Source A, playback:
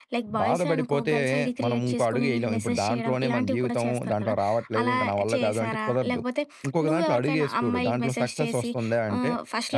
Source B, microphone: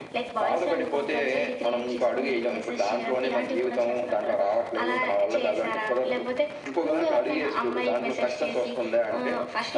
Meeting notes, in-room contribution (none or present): none